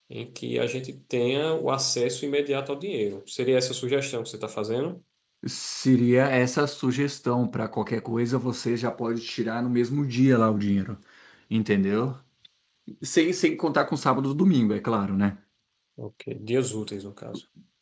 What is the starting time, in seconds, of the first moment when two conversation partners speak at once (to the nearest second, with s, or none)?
none